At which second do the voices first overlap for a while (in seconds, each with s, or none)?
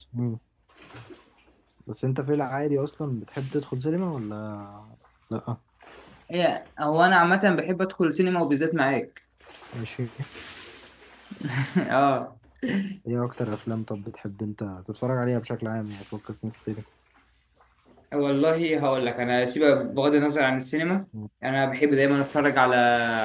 none